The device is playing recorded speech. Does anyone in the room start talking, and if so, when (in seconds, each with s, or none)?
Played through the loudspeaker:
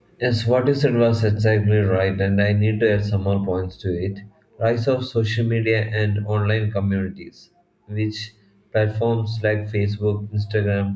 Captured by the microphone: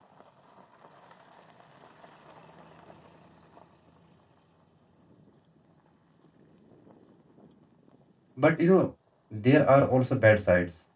8.3 s